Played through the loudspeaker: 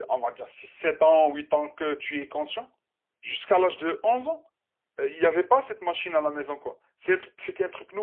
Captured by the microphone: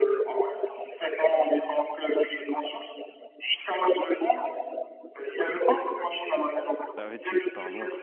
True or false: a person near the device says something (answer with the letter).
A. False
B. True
B